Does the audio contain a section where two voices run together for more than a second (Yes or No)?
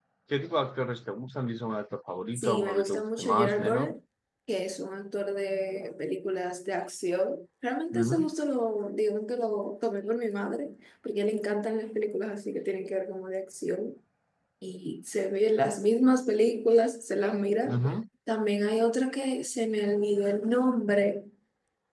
Yes